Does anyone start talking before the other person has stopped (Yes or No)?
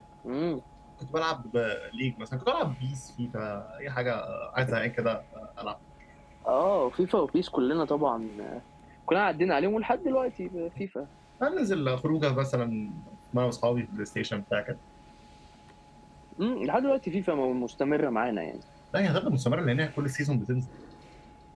No